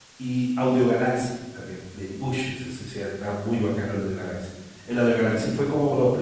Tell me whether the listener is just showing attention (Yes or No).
Yes